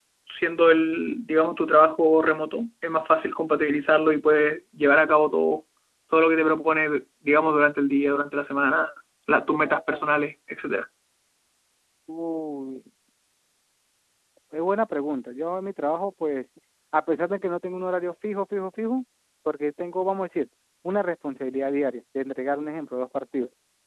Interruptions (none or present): none